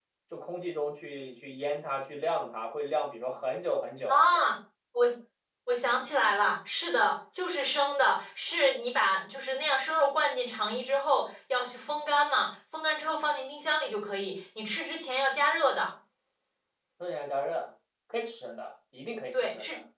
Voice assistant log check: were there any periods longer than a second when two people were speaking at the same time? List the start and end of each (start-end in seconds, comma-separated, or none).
none